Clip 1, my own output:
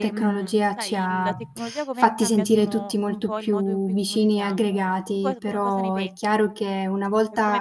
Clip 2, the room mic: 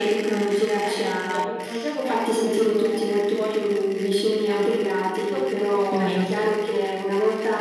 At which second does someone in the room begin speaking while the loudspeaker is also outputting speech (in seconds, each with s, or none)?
5.9 s